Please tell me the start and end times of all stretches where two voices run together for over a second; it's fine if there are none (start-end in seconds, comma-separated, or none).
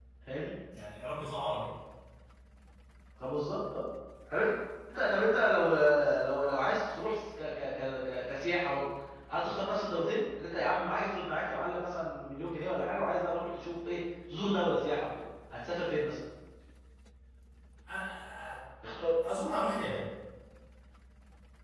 none